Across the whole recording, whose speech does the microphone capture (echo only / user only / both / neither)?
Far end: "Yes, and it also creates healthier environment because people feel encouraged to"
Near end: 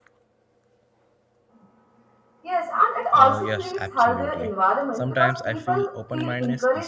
both